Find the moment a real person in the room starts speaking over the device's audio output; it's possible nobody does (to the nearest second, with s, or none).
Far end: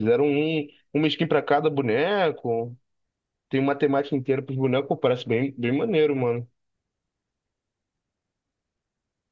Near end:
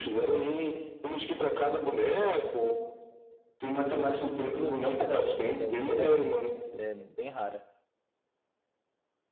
4 s